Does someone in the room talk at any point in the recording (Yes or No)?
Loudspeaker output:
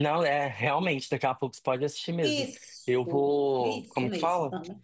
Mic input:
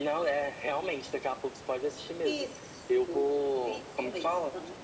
No